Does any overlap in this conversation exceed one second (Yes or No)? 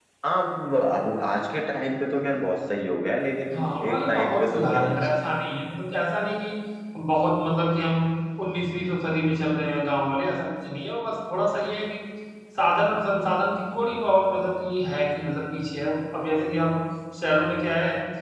Yes